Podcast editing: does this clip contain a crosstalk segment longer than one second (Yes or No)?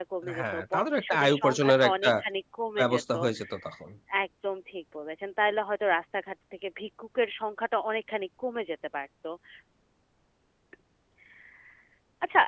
Yes